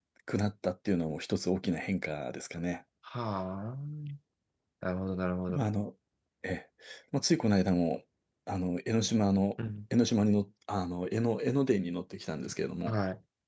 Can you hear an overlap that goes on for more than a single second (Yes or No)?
No